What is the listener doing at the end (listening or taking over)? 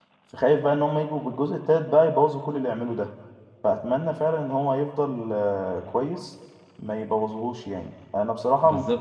listening